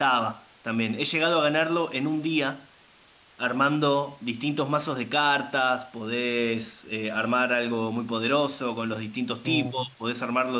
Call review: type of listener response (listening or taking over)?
listening